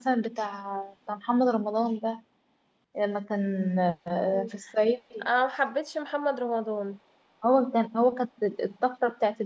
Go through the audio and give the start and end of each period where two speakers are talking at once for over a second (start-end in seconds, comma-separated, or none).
none